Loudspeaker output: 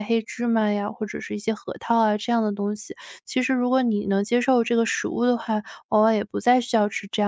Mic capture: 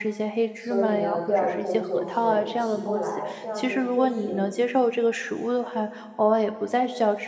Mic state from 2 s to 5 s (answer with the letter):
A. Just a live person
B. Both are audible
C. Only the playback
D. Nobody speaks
B